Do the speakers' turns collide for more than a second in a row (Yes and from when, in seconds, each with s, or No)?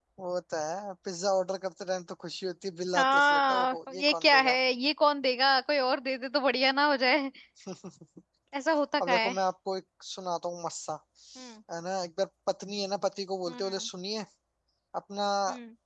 Yes, from 3.0 s